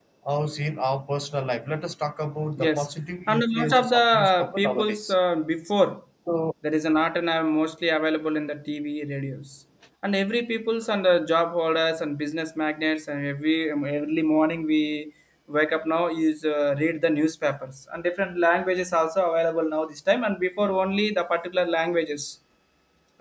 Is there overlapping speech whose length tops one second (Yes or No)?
Yes